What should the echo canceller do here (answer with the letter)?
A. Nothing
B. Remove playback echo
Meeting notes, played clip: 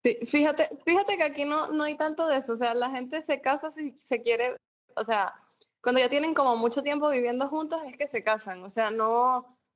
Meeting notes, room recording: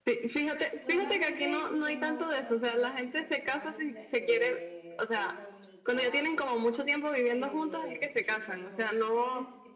B